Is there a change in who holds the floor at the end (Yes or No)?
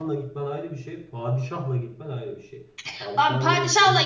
Yes